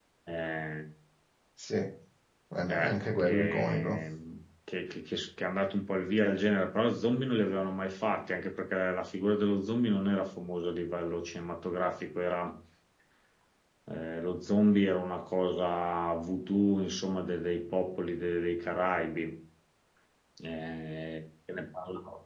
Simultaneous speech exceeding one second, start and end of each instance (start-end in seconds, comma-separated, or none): 2.7-4.0